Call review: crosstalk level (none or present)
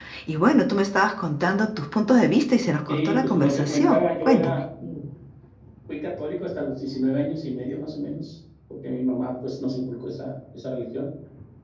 present